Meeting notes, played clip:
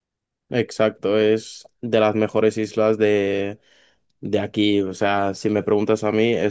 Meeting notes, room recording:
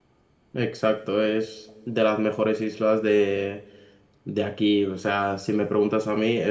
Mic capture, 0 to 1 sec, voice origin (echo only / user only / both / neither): echo only